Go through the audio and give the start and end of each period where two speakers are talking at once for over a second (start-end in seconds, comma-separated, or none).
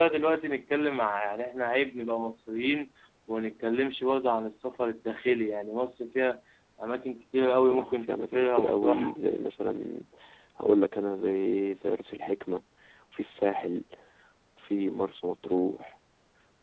7.6-9.1